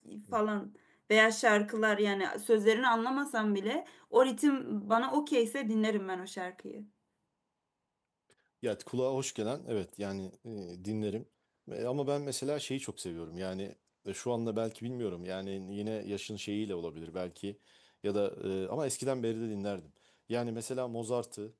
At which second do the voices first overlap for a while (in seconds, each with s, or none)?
none